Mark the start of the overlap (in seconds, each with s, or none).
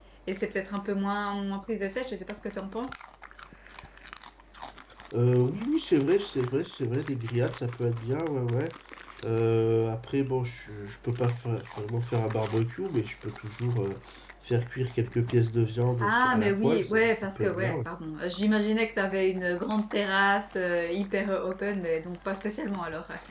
16.0 s